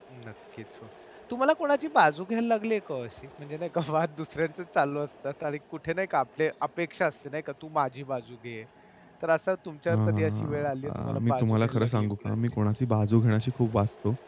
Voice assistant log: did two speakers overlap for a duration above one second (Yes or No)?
Yes